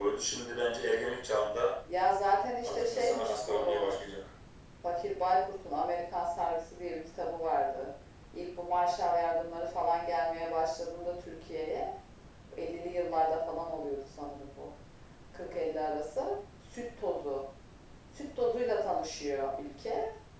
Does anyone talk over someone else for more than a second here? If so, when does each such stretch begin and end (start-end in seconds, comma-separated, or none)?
2.6-4.0